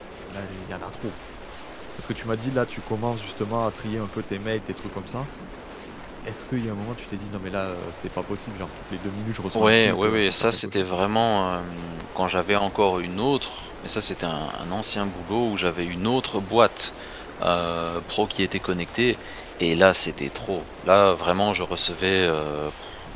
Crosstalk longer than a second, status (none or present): present